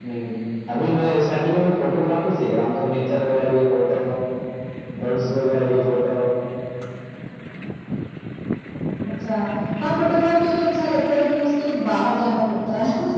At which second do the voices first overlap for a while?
none

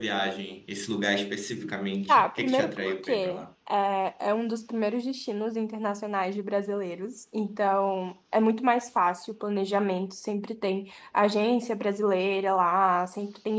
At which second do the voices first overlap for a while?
2 s

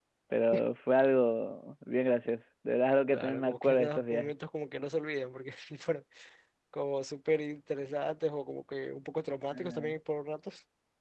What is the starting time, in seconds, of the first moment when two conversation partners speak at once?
3 s

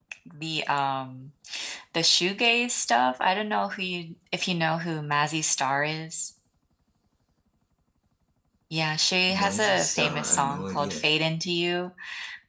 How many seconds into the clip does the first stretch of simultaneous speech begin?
9 s

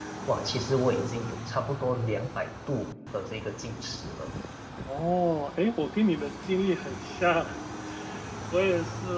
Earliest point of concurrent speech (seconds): none

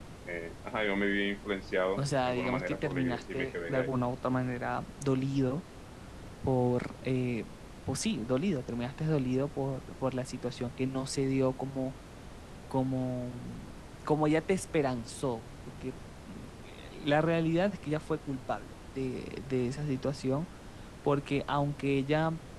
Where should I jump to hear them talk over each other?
2 s

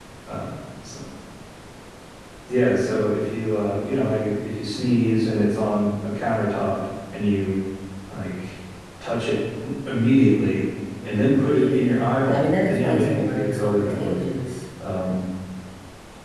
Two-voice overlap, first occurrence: 11 s

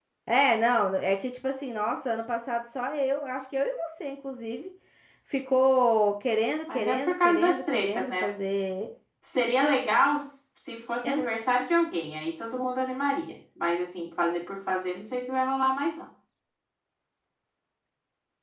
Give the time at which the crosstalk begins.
7 s

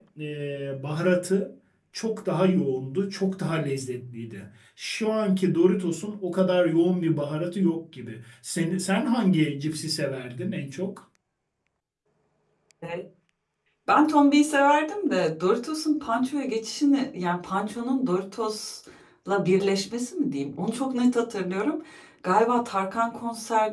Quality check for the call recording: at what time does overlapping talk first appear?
none

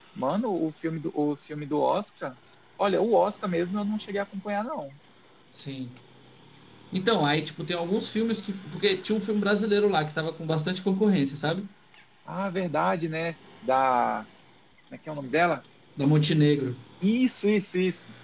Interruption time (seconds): none

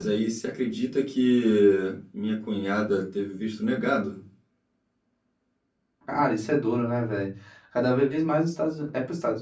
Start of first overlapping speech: none

